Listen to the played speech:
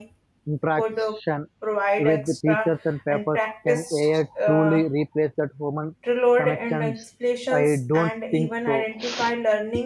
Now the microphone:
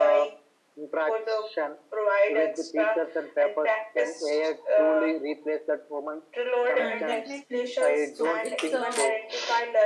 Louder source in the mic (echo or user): echo